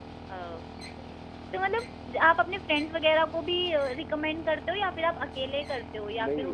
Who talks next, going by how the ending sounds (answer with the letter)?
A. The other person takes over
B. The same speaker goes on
A